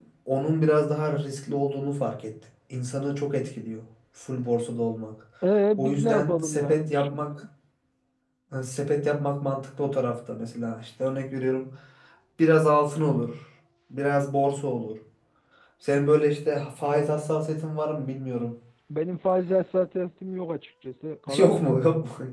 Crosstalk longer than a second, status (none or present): present